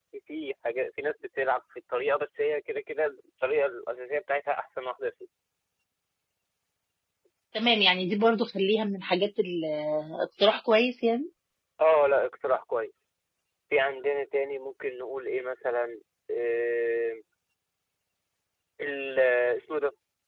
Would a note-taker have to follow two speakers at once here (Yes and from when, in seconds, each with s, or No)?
No